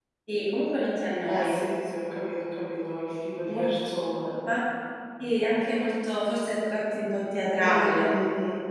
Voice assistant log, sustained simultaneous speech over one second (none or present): none